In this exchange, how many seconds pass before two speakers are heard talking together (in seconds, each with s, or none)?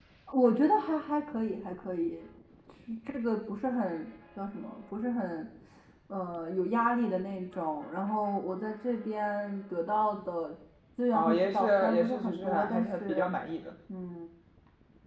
11.1 s